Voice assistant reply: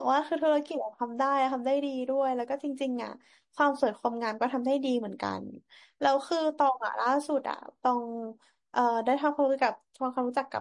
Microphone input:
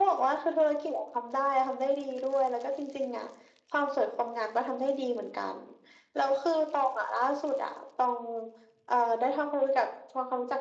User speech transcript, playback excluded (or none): none